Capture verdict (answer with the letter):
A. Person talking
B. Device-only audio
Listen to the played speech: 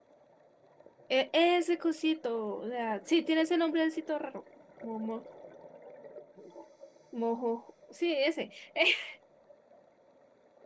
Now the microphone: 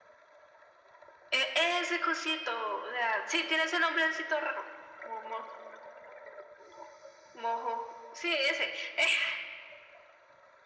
B